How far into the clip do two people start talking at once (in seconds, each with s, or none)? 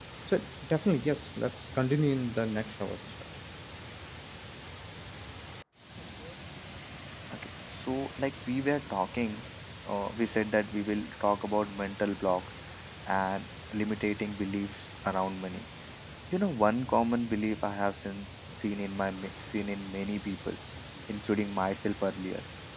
none